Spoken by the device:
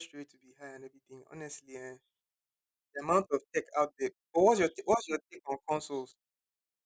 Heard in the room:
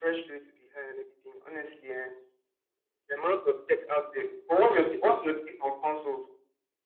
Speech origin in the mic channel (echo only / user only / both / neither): echo only